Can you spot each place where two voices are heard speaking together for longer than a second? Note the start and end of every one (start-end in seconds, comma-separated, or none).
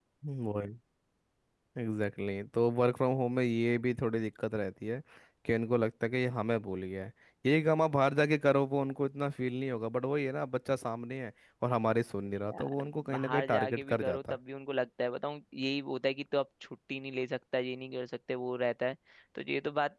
12.5-14.4